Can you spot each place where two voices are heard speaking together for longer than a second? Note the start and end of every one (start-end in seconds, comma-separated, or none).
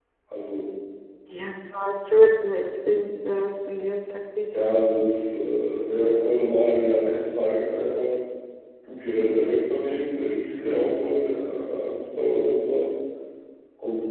none